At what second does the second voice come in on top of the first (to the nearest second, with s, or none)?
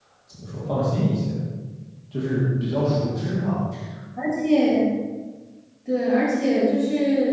none